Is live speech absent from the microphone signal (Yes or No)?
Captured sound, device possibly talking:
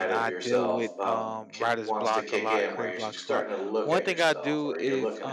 No